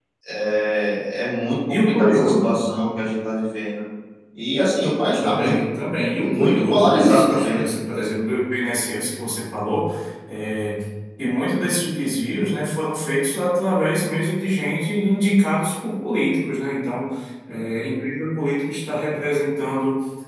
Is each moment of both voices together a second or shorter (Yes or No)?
No